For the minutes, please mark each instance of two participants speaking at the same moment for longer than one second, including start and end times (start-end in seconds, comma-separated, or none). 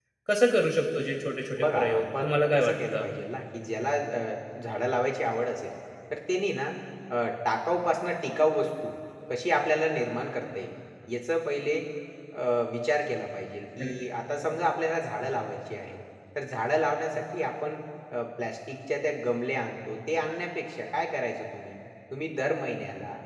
1.6-3.1